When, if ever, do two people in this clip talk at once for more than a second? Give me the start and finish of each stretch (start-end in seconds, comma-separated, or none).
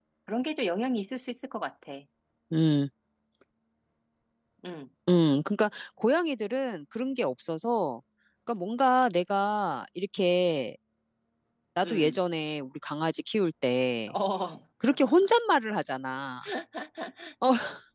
none